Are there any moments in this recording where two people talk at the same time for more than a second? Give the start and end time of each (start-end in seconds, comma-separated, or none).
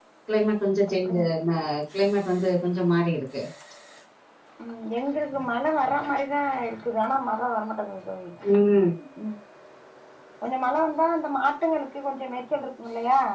none